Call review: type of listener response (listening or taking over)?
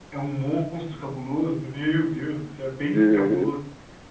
listening